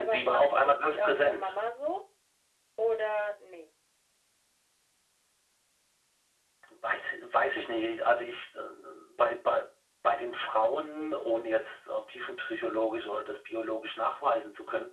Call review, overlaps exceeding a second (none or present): present